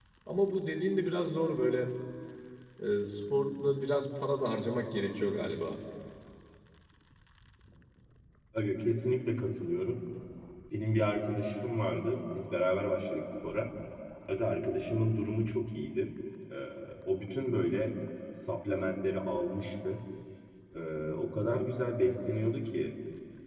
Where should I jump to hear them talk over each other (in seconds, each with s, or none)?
none